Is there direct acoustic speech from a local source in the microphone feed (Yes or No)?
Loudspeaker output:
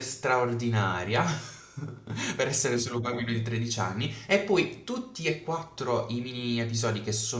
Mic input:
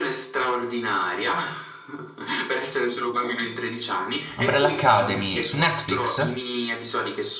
Yes